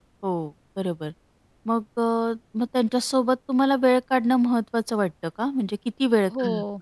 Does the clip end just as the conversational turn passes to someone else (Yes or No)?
Yes